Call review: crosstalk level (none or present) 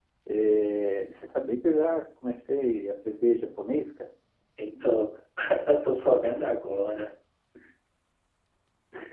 none